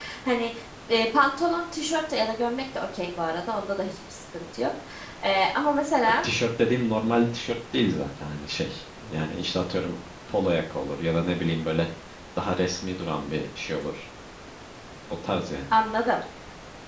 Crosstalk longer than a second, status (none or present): none